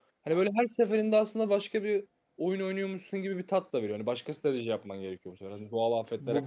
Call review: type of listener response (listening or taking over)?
taking over